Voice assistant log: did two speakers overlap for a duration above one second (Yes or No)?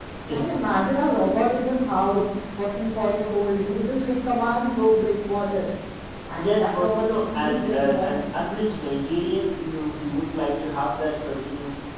Yes